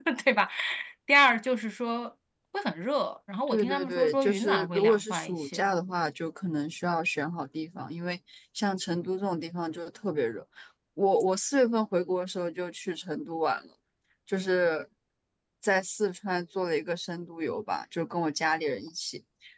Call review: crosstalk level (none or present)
present